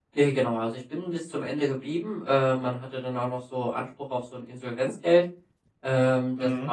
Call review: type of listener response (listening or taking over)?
listening